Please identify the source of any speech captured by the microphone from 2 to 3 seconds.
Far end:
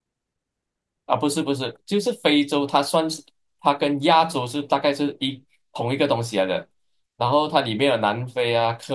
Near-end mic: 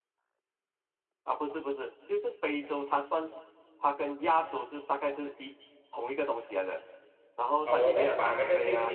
echo only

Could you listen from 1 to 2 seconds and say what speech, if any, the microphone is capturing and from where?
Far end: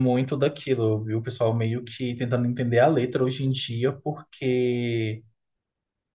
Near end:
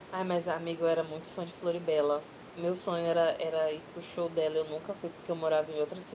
user only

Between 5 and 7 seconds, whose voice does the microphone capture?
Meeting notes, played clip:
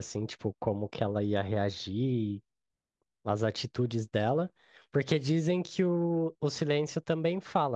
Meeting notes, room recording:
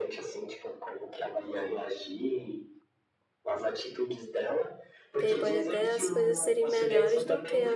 both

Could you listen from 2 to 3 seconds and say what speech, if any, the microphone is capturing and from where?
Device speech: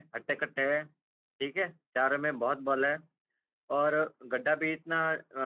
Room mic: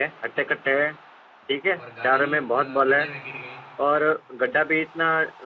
both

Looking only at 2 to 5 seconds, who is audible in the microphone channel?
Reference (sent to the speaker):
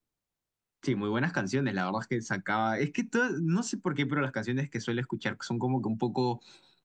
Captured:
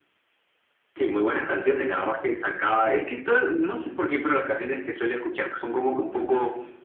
echo only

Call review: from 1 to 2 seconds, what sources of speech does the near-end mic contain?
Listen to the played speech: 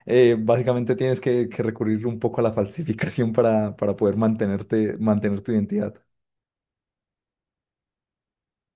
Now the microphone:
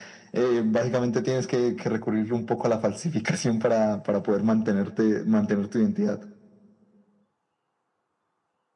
echo only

